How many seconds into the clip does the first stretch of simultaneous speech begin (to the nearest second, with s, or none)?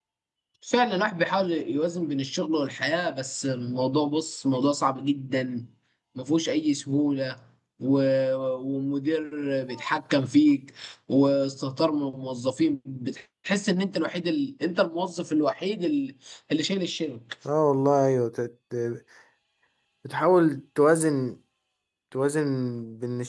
none